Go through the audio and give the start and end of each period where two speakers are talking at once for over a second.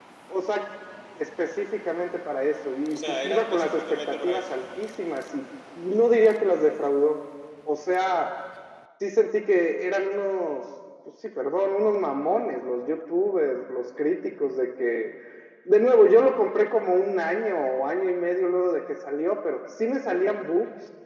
2.9-4.4

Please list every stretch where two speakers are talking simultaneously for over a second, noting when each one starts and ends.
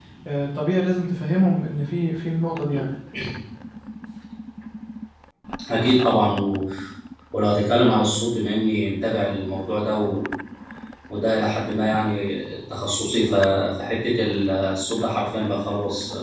none

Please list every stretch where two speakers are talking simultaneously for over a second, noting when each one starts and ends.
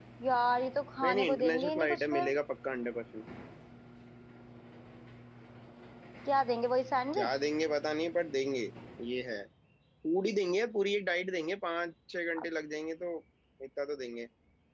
1.0-2.3

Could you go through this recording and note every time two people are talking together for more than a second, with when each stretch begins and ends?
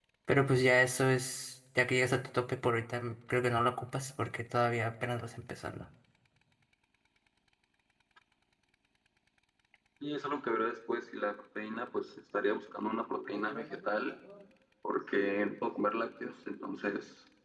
none

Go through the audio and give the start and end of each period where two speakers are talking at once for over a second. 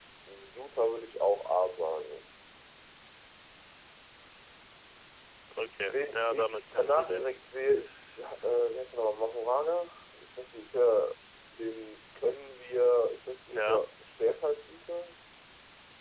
5.9-7.3

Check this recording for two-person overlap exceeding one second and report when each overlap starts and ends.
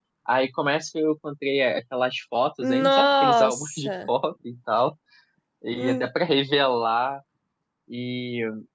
2.8-4.1

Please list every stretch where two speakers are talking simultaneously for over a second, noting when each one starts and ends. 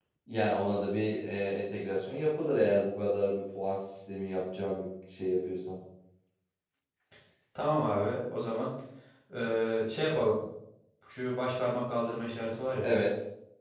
none

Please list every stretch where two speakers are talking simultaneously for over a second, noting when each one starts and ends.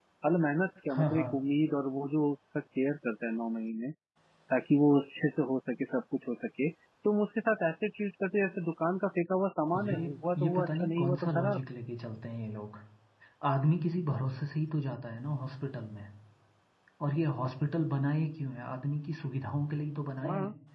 9.8-11.6

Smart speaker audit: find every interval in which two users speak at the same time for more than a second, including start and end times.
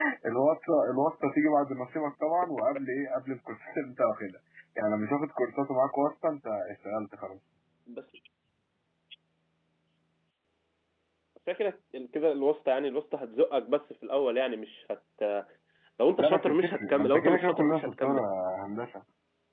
16.2-18.2

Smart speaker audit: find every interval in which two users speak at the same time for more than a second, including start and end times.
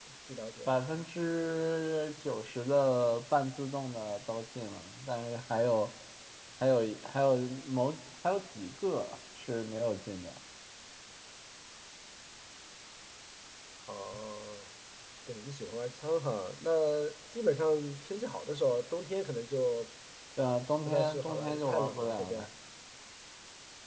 20.9-22.5

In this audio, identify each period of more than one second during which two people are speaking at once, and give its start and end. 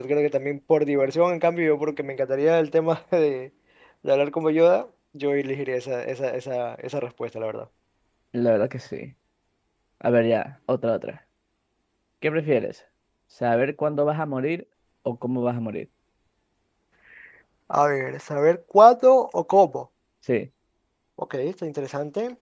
none

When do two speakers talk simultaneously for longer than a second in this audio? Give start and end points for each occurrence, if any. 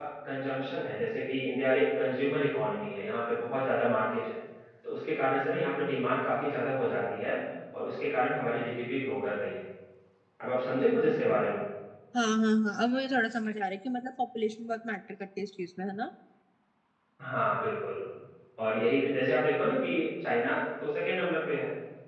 none

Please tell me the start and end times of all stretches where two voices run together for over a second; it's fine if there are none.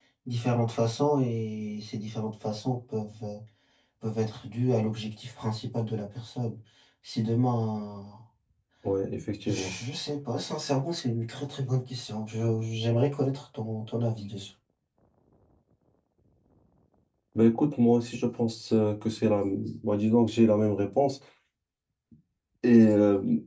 none

